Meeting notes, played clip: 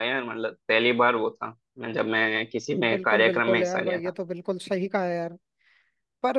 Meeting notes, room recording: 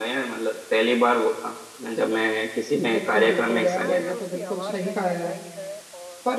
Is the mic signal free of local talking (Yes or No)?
No